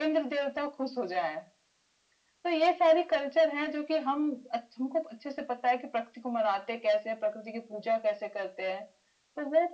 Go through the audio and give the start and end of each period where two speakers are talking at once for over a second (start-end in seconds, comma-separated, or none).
none